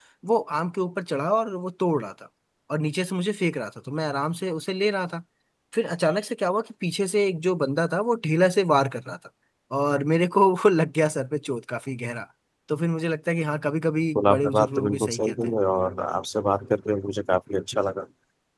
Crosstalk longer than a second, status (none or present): present